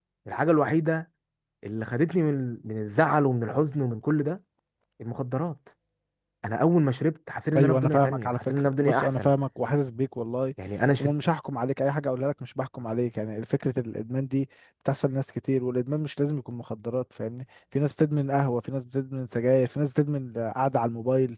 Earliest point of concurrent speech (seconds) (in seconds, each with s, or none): 7.5 s